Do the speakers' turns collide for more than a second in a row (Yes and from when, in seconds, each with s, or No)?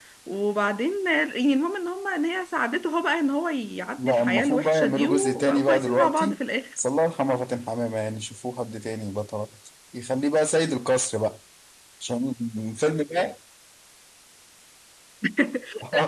Yes, from 4.0 s